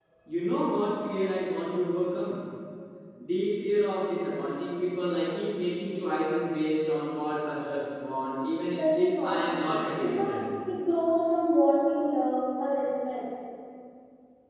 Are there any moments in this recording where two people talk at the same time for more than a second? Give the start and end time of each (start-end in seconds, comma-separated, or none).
8.7-10.4